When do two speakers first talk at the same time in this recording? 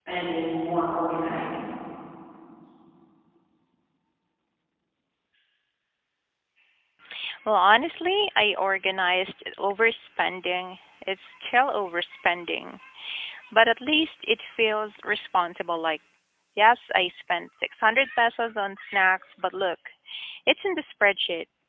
none

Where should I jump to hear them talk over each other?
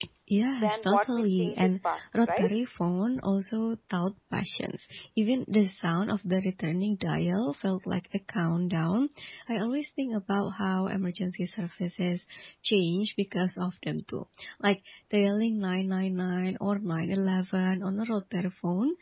0.6 s

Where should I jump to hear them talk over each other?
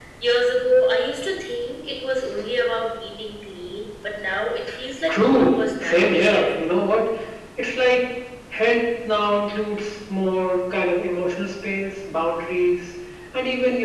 5.1 s

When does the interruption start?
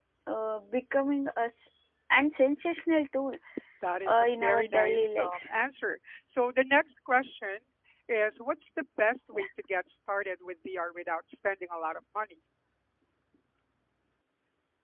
4.1 s

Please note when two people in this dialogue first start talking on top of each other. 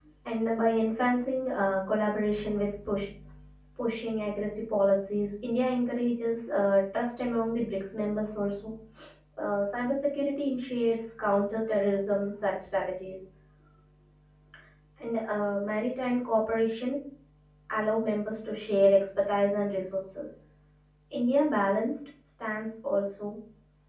none

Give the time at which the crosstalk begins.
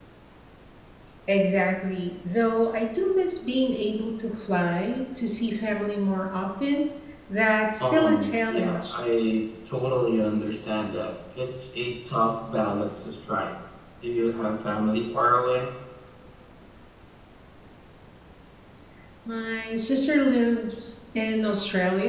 7.8 s

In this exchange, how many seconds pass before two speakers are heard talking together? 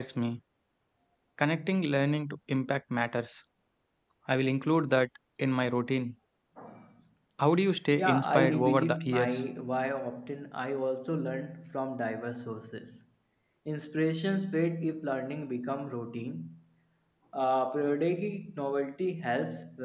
8.0 s

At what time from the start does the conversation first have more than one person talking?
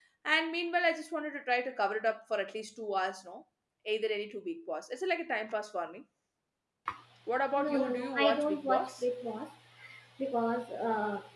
7.6 s

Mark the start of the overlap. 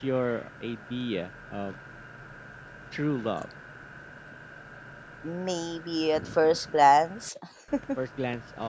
none

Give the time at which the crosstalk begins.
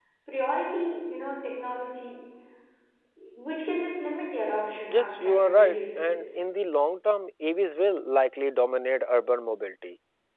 4.9 s

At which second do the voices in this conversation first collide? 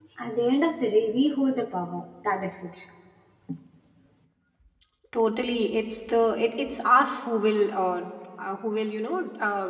none

